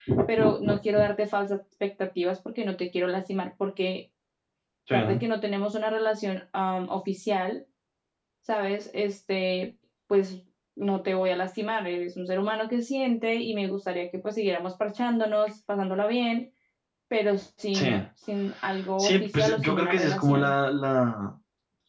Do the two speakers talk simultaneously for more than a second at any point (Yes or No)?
Yes